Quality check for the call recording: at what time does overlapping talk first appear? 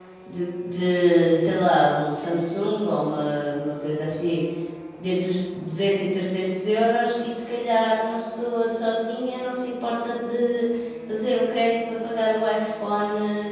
none

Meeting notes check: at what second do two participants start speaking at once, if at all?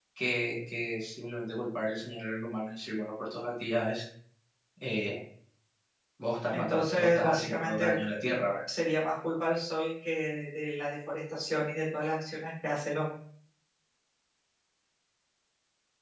6.5 s

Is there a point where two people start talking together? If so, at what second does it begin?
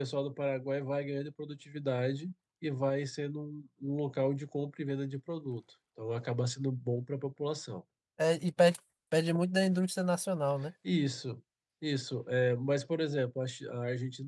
none

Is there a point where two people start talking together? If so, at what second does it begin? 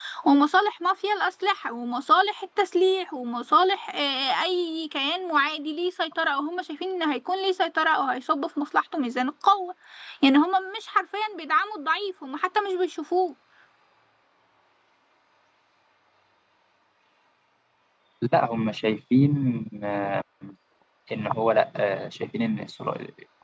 none

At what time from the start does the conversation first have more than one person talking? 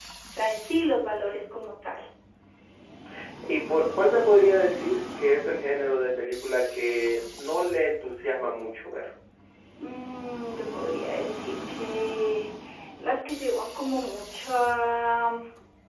none

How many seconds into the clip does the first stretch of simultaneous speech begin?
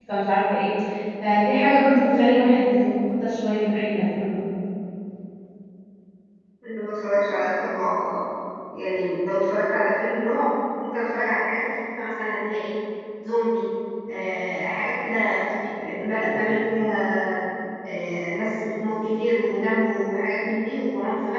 none

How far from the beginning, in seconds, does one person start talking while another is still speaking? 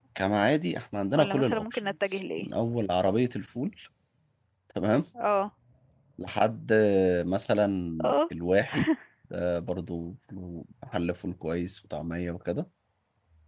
1.1 s

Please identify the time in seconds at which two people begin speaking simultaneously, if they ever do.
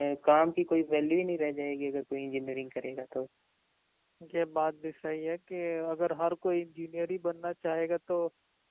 none

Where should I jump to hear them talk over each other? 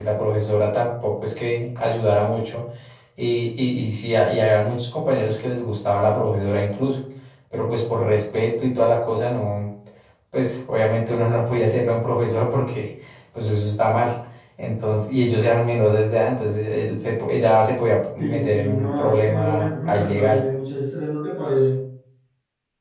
18.2 s

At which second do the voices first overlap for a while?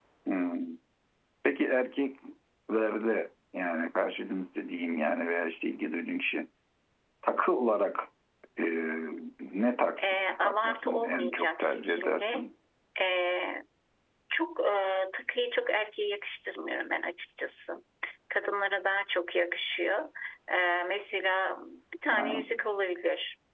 10.0 s

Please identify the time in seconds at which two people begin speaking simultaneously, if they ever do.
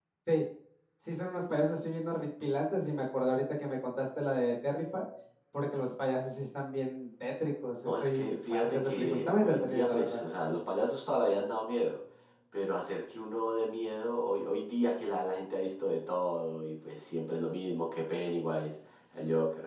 7.8 s

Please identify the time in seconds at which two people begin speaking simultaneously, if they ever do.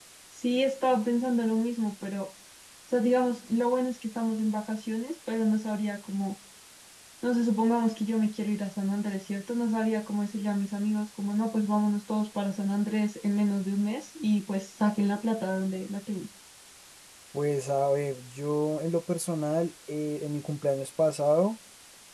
none

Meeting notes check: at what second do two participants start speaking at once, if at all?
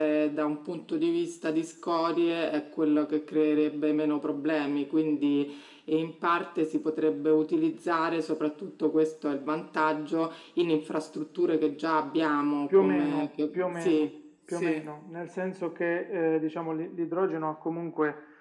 12.7 s

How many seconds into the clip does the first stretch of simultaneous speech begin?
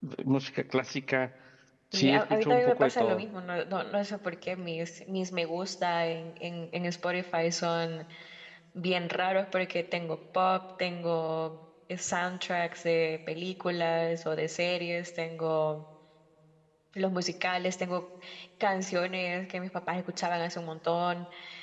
1.9 s

